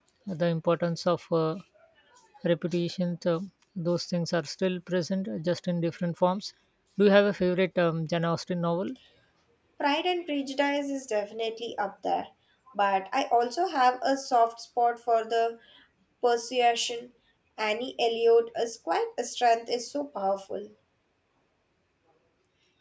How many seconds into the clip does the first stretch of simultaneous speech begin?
none

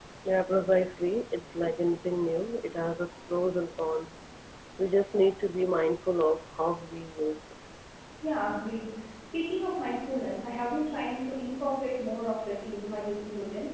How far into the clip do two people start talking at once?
none

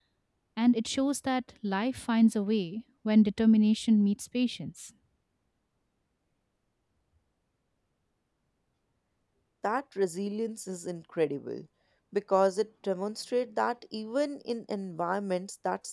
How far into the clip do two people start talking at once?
none

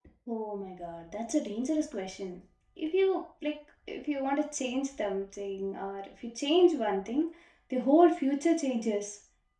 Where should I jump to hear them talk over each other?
none

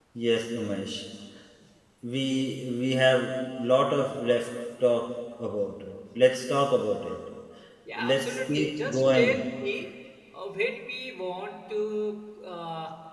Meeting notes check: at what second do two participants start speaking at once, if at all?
8.1 s

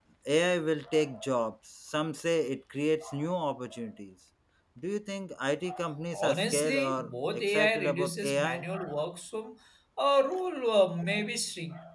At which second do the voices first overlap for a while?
6.1 s

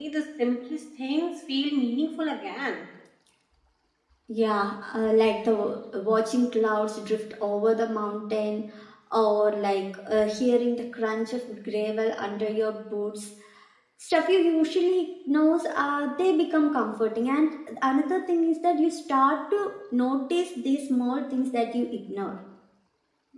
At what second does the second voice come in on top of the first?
none

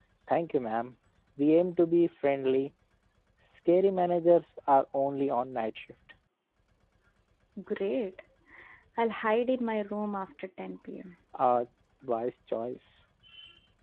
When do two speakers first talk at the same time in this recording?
none

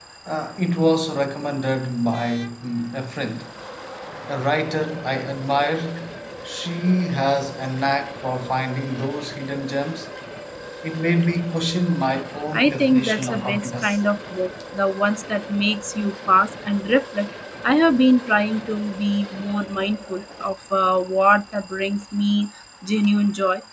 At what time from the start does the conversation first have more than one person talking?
12.5 s

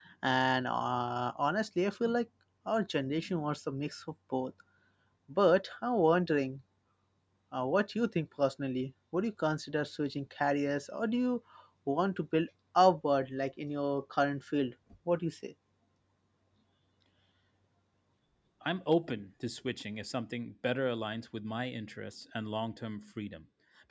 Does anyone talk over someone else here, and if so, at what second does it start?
none

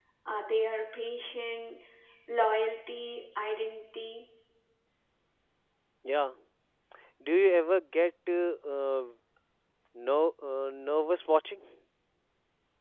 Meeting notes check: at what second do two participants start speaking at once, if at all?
none

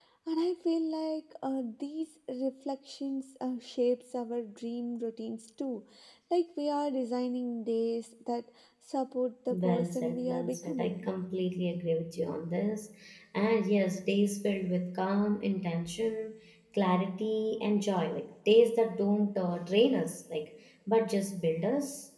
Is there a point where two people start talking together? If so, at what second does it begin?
9.5 s

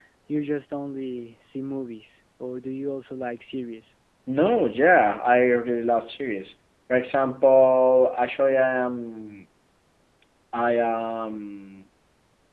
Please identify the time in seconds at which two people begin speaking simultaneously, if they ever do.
none

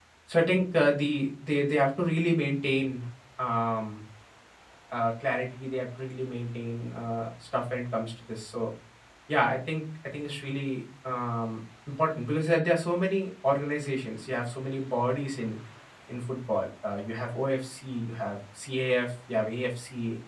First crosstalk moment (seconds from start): none

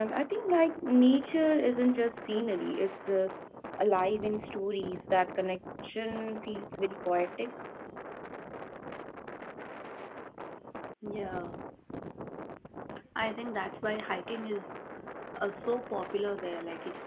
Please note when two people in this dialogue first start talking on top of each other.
none

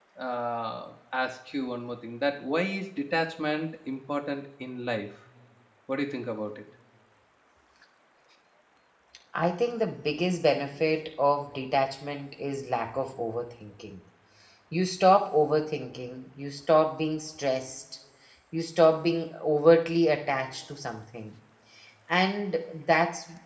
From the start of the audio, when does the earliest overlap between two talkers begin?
none

